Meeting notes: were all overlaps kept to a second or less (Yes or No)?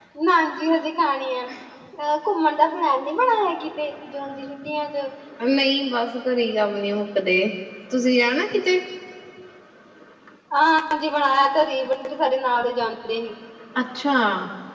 Yes